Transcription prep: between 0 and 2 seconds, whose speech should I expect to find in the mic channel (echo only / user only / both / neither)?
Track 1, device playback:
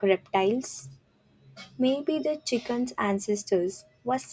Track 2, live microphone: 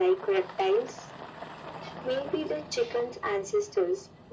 echo only